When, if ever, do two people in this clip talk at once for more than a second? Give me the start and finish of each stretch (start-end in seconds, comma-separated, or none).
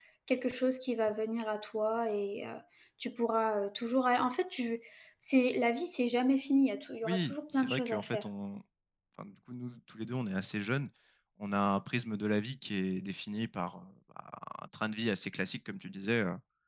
7.0-8.3